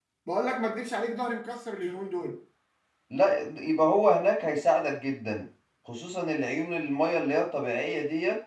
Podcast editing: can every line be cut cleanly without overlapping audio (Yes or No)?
Yes